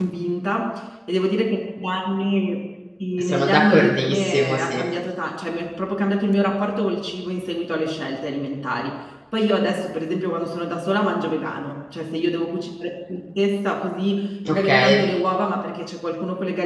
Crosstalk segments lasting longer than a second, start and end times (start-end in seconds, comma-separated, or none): 3.2-4.8